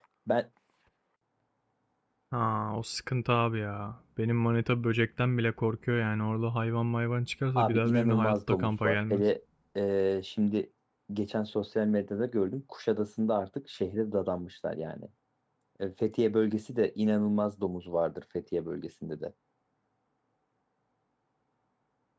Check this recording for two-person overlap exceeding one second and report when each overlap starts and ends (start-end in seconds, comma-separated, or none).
7.6-9.2